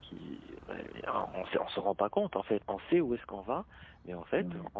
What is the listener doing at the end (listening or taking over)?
listening